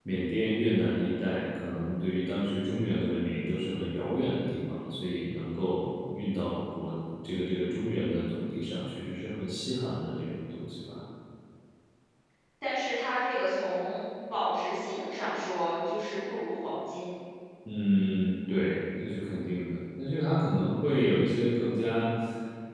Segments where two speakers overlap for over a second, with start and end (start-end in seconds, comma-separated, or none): none